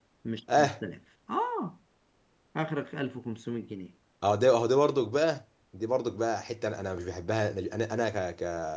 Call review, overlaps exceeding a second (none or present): none